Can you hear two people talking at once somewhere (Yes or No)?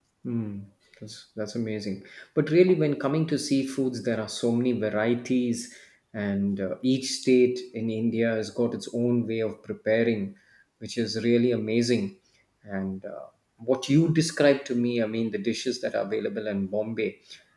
No